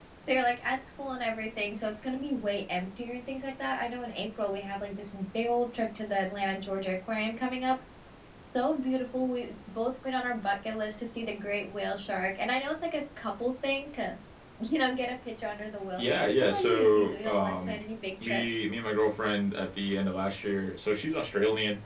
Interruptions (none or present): present